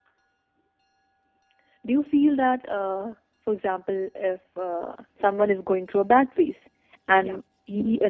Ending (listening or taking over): listening